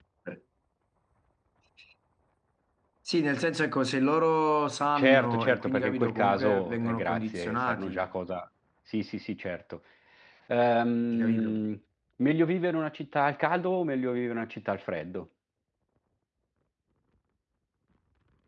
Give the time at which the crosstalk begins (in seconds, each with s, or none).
5.0 s